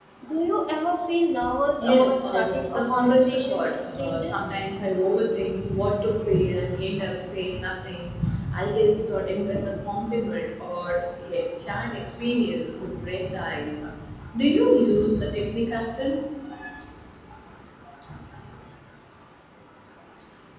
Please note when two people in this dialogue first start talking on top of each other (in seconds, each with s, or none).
1.8 s